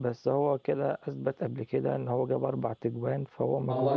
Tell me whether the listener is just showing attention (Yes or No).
No